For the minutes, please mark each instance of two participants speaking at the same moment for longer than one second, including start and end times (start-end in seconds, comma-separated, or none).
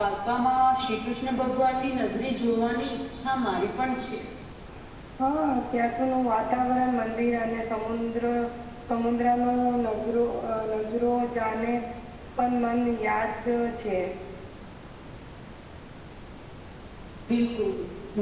none